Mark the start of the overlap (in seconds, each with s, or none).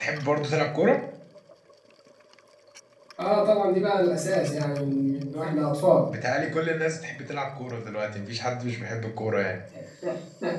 none